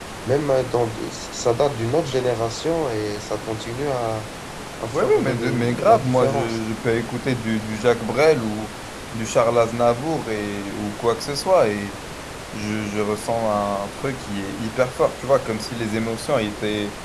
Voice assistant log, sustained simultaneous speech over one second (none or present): present